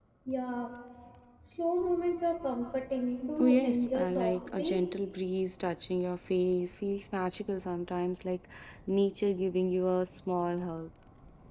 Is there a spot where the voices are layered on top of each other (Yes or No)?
Yes